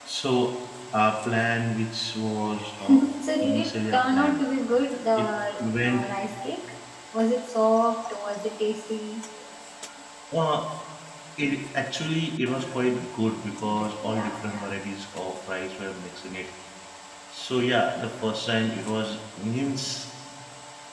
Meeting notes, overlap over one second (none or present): present